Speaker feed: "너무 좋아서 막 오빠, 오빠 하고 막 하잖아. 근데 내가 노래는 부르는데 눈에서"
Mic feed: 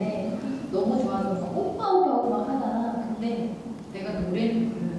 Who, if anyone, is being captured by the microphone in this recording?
echo only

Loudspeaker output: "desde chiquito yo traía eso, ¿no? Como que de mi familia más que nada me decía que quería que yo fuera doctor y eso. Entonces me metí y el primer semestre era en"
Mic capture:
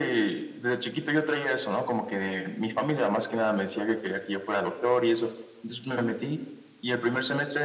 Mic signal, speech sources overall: echo only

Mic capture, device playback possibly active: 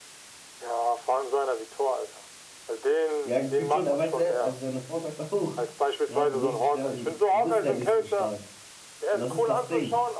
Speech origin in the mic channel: both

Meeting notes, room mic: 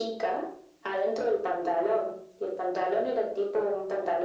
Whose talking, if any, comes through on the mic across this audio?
echo only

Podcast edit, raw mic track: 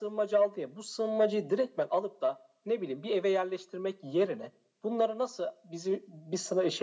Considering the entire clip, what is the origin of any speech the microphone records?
echo only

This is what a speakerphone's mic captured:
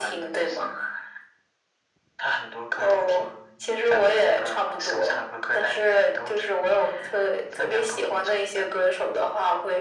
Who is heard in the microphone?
echo only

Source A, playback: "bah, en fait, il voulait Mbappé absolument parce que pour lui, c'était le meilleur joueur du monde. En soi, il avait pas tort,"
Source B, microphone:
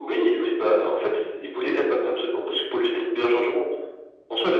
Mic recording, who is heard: echo only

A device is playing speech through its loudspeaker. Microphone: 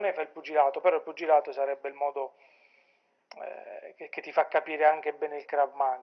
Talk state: echo only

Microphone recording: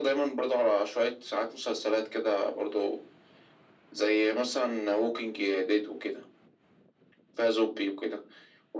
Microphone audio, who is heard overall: echo only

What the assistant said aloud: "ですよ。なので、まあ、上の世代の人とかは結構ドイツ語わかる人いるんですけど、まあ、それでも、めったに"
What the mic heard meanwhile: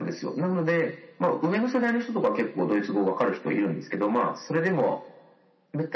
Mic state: echo only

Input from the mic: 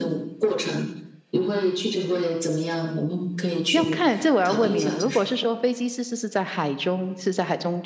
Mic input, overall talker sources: both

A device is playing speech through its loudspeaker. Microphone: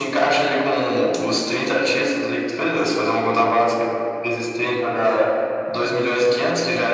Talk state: echo only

